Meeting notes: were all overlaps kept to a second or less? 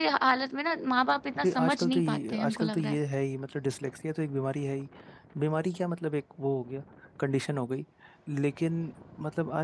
No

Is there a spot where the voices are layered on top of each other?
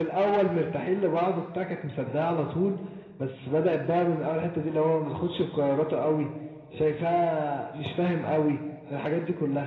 No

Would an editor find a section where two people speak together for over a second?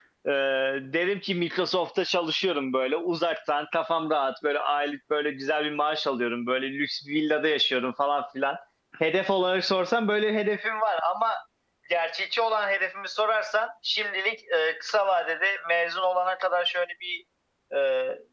No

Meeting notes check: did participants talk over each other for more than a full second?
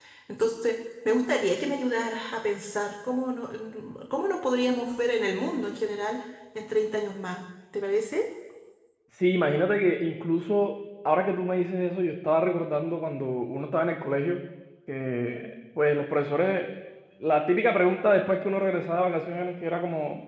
No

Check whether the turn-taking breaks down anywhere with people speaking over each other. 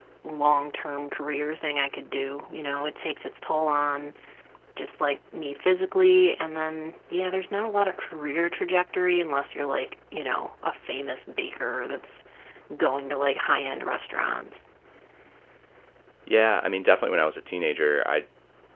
No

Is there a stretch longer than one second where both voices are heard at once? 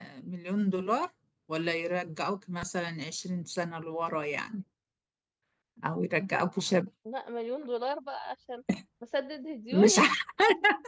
No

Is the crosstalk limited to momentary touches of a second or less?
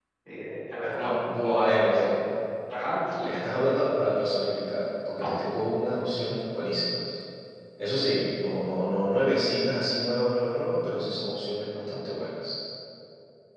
No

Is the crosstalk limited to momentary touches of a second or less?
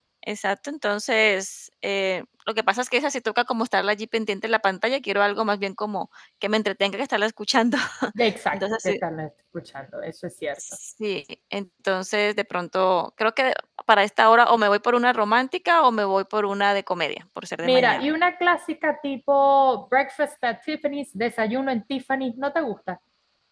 Yes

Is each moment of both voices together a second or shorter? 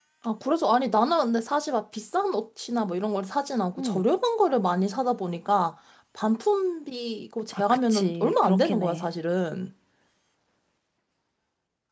No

